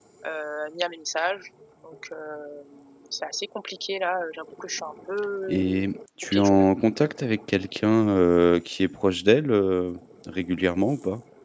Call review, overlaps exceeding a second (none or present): none